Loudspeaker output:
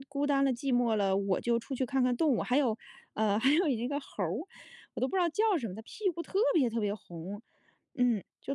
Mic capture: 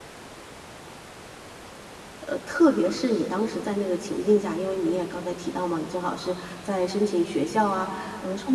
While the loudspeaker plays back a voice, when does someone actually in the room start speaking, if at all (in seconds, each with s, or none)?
2.3 s